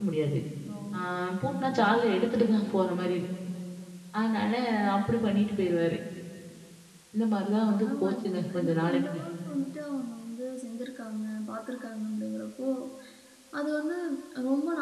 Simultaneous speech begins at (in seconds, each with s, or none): 7.7 s